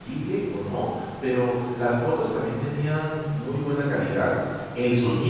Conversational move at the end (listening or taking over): listening